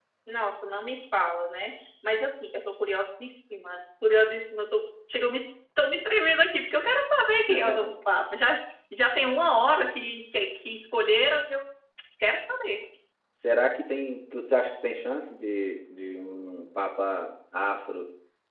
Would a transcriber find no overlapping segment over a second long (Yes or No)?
Yes